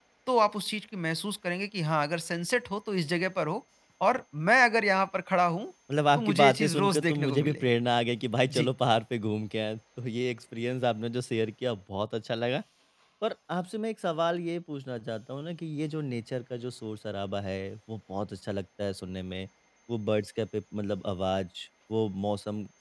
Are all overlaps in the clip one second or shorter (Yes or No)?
No